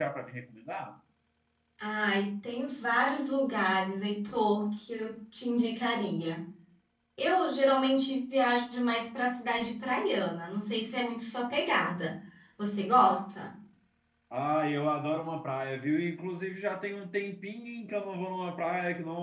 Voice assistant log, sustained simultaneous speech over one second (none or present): none